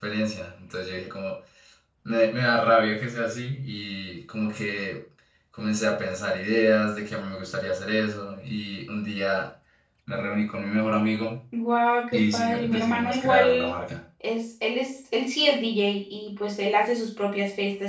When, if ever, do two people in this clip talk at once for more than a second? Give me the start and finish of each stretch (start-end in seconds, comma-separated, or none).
12.1-13.8